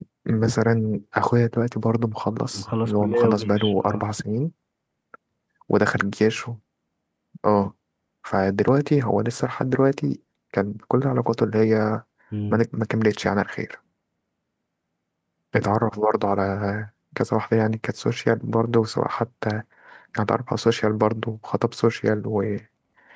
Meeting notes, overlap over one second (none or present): present